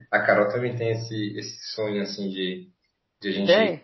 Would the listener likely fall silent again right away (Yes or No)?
Yes